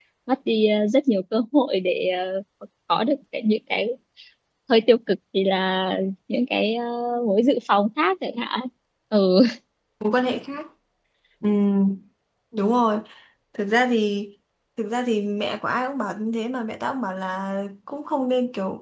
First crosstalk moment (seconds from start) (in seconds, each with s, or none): none